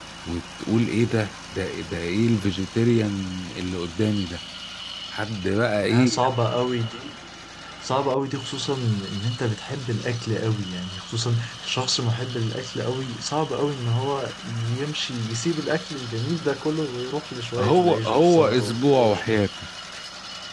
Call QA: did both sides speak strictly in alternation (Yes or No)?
No